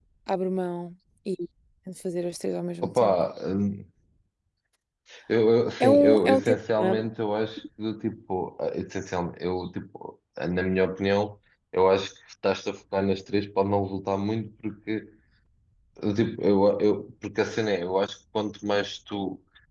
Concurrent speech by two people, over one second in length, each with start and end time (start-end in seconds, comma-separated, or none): 5.8-7.1